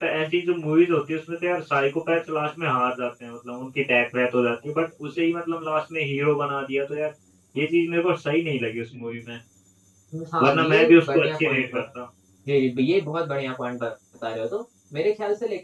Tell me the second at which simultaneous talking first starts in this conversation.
10.4 s

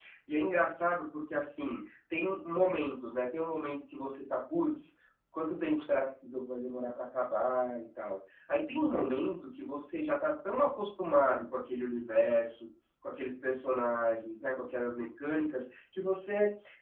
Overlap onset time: none

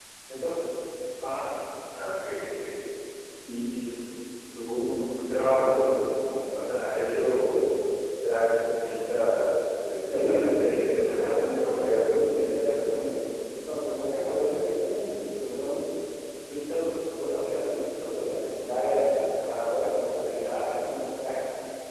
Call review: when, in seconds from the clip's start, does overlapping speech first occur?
10.0 s

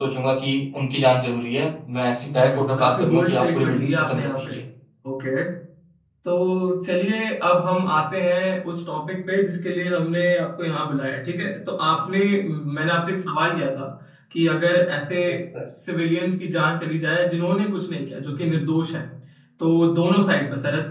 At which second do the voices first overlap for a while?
2.2 s

